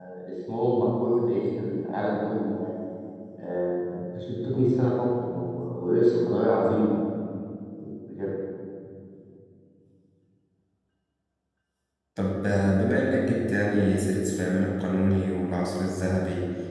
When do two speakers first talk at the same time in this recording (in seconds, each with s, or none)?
none